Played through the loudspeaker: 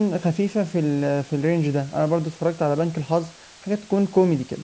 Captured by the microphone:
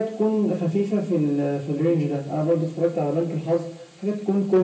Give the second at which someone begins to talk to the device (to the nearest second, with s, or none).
none